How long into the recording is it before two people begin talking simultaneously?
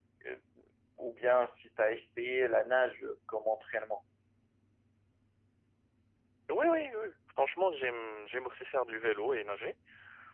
none

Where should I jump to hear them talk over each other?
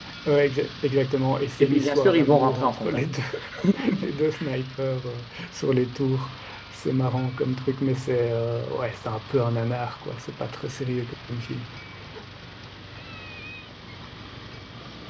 2 s

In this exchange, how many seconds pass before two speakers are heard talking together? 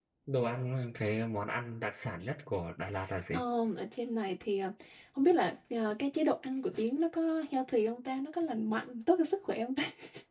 none

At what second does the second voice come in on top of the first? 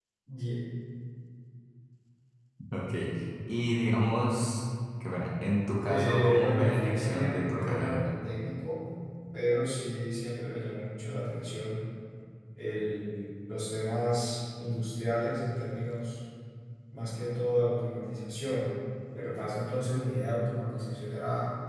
6 s

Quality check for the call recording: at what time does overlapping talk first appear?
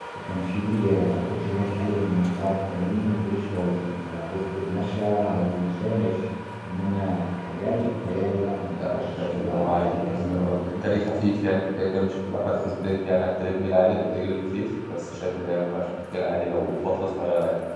9 s

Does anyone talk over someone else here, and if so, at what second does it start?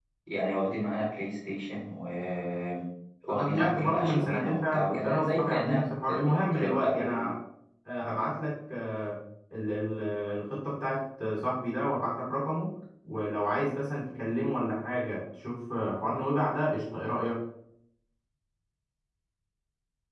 3 s

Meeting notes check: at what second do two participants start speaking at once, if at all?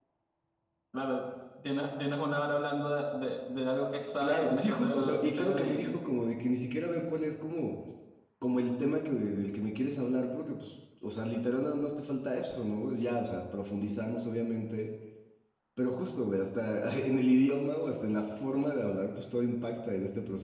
4 s

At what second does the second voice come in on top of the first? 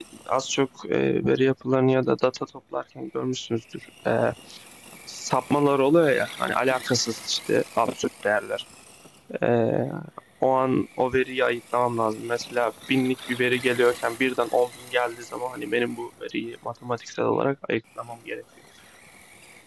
none

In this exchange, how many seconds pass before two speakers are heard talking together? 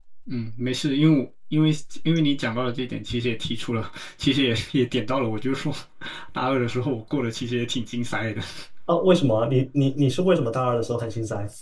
none

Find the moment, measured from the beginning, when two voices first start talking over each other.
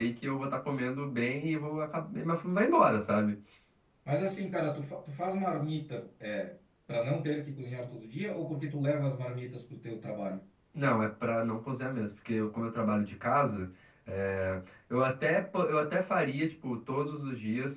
none

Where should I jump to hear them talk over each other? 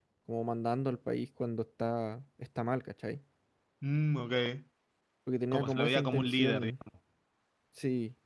6 s

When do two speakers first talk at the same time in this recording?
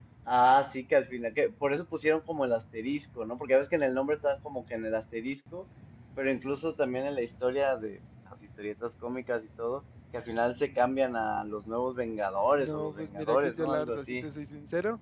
12 s

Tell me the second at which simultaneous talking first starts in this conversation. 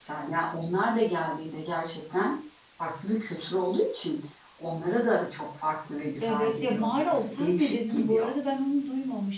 6 s

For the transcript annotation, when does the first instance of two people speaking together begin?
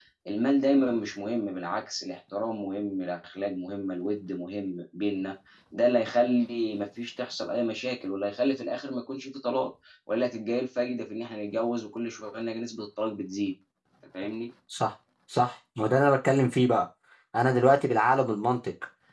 none

